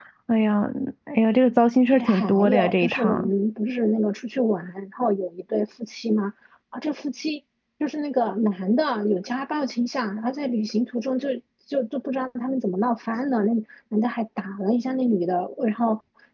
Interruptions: present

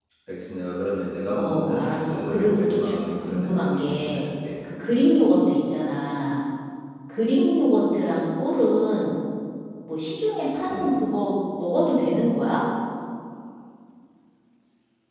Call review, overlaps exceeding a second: present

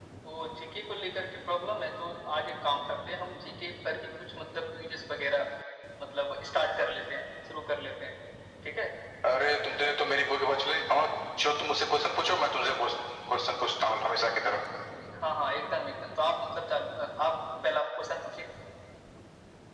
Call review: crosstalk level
none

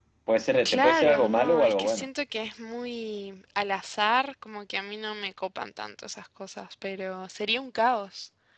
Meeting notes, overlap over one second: present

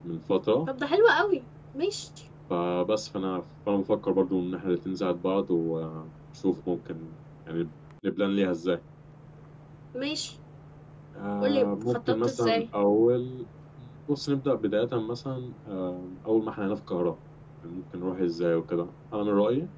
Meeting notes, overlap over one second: present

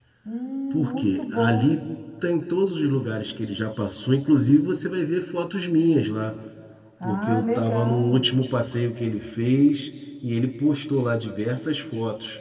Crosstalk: present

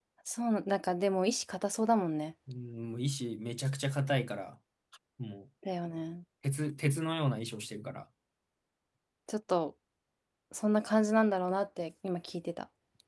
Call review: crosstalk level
none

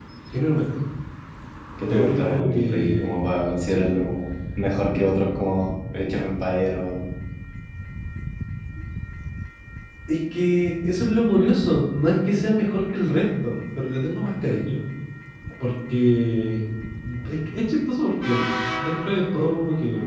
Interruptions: present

